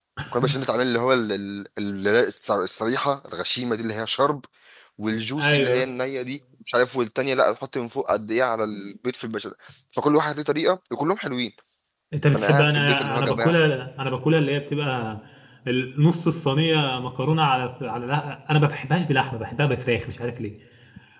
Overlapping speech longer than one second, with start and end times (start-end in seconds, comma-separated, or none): 12.3-13.5